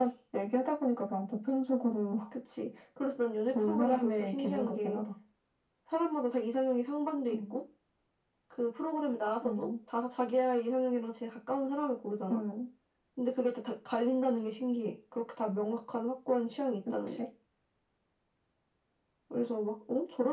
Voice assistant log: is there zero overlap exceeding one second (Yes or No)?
No